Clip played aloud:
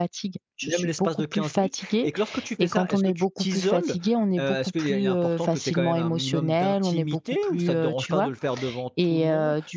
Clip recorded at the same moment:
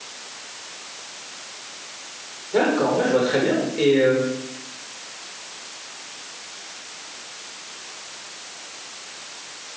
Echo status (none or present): none